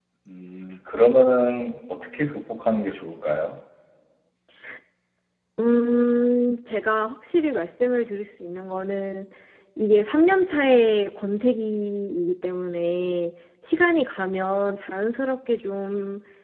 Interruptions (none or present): none